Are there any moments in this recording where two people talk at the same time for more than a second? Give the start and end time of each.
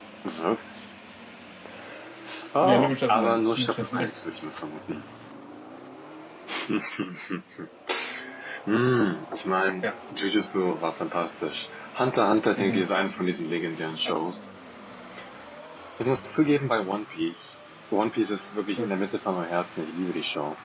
2.6-4.1

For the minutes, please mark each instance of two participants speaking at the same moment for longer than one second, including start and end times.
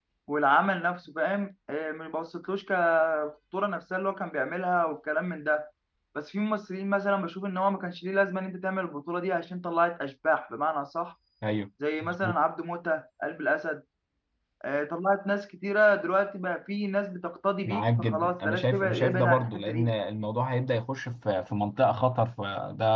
17.6-19.9

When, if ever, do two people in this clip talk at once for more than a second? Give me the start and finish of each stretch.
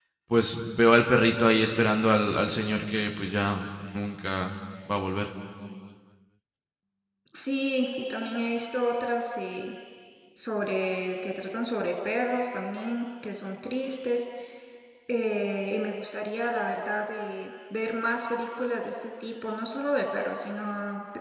none

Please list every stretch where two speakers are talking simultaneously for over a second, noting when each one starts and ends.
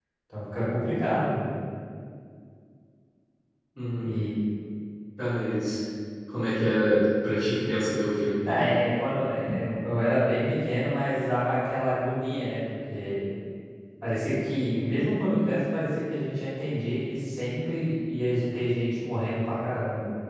none

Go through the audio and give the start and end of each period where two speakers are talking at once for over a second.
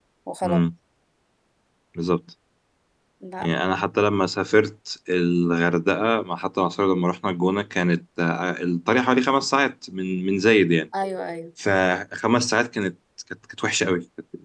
none

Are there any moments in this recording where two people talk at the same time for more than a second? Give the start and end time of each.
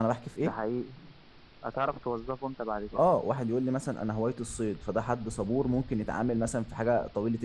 none

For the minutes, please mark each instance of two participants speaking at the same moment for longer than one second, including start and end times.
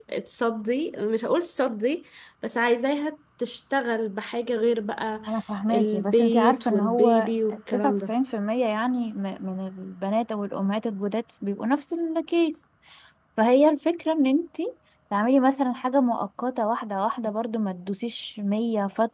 5.7-7.3

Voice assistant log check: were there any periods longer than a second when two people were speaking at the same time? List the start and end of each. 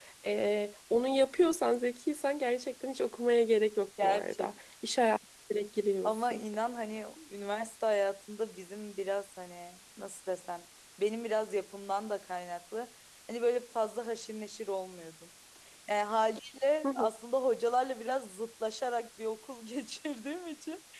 none

